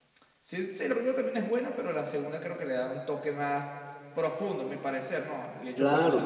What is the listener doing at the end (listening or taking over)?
taking over